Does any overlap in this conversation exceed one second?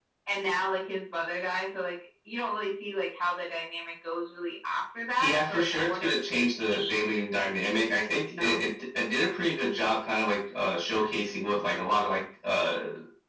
Yes, from 5.2 s

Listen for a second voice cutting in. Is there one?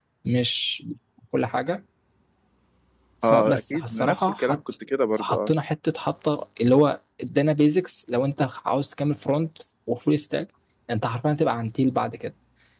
Yes, from 3.2 s

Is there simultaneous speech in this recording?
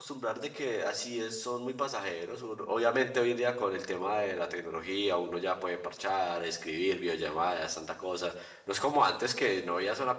No

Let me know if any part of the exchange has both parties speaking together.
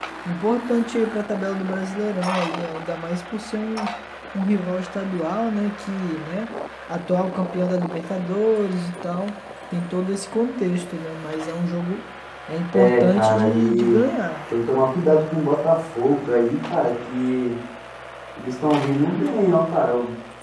Yes, from 12.7 s

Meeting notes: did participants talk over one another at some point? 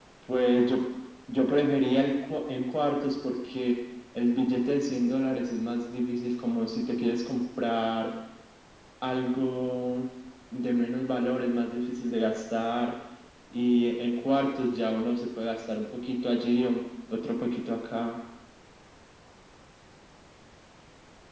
No

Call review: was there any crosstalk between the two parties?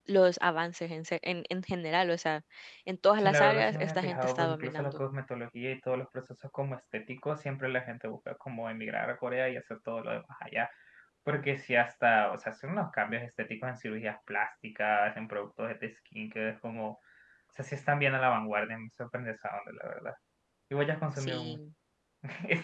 Yes, from 3.2 s

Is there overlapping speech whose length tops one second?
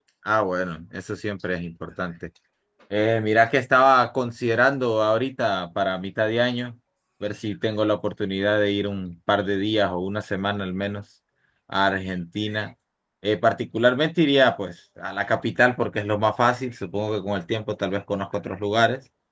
No

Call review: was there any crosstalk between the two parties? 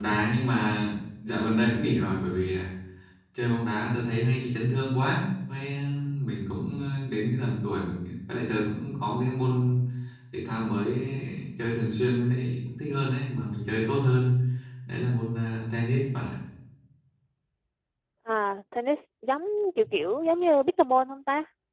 No

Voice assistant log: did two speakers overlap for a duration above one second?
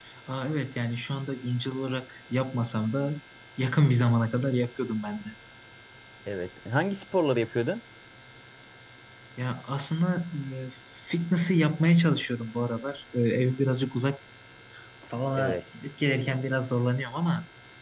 No

